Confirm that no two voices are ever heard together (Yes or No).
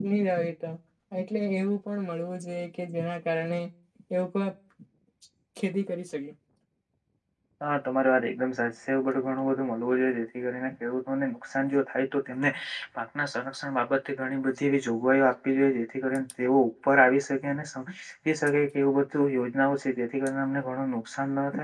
Yes